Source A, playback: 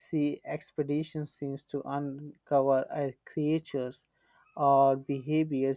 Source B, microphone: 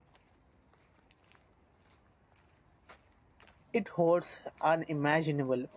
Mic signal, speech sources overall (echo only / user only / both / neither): user only